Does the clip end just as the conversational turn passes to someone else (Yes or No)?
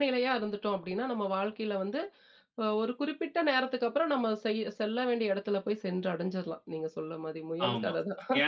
Yes